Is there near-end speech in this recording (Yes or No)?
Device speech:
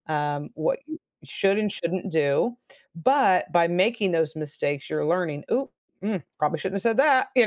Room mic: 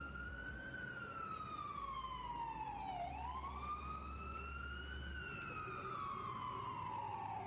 No